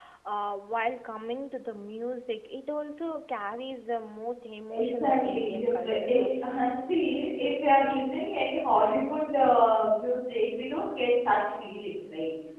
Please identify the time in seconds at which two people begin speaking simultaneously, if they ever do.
4.7 s

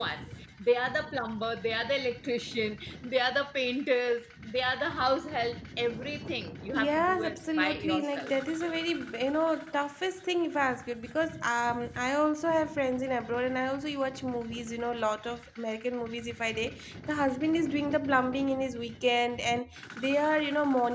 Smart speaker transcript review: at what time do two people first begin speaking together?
6.7 s

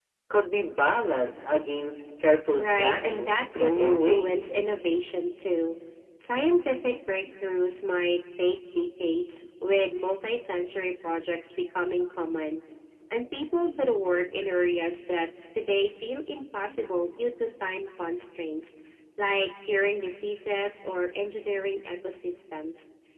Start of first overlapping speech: 2.6 s

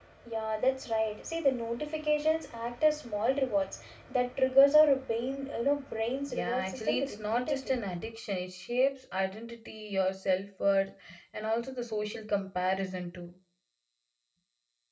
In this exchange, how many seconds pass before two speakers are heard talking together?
6.3 s

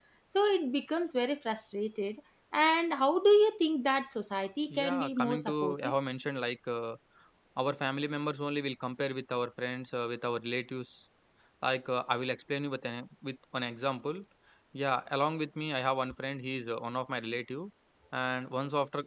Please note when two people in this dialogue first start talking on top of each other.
4.7 s

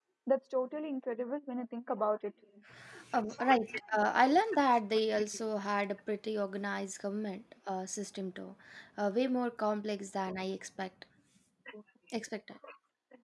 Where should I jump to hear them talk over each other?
none

